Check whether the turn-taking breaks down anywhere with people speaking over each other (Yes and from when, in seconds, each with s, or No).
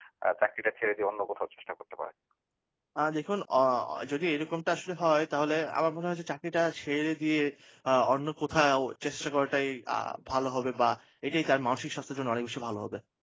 No